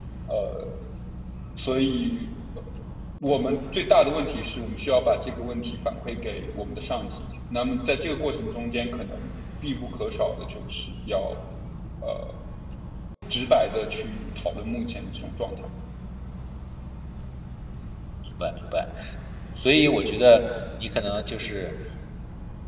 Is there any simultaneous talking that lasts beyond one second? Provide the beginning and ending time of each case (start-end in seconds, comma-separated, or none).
none